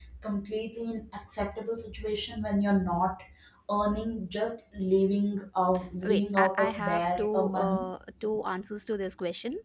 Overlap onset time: 6.0 s

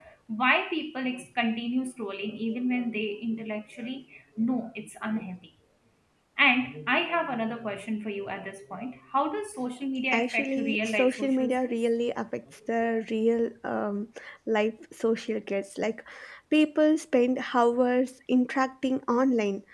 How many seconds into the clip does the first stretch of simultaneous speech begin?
10.1 s

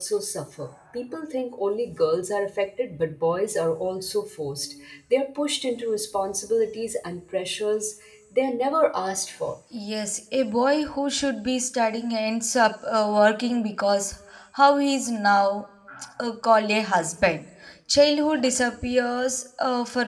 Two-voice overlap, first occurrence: none

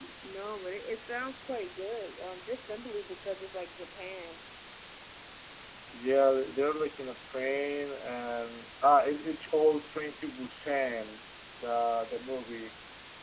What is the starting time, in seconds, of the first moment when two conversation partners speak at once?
none

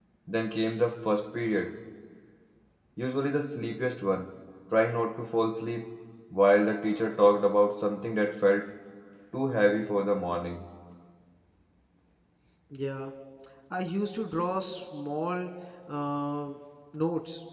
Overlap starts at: none

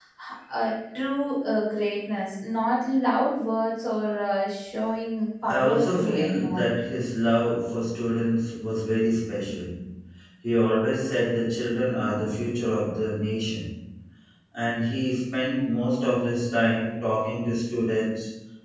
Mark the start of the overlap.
5.4 s

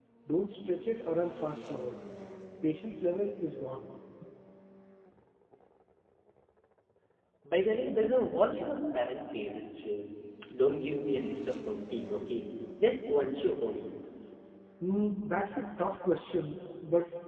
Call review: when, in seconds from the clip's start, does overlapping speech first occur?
none

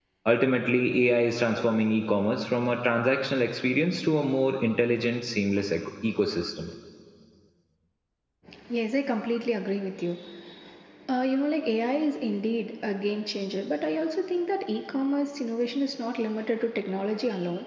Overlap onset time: none

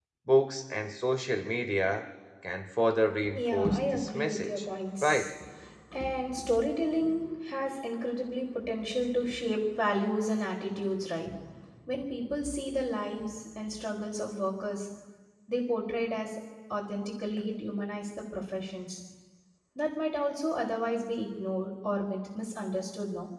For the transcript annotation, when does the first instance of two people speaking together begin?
3.3 s

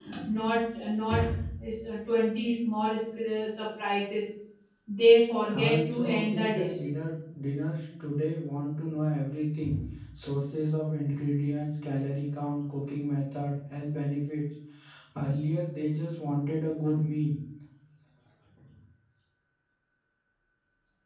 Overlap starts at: 5.5 s

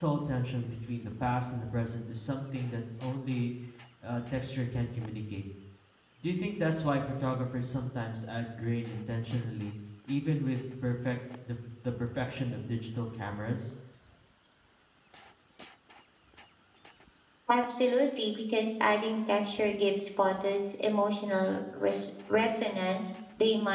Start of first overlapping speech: none

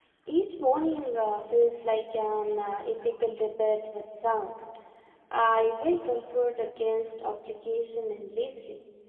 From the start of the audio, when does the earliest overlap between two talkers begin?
none

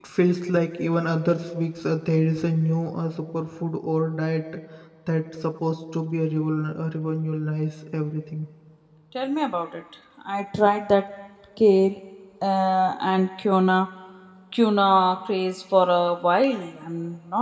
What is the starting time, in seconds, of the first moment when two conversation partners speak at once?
none

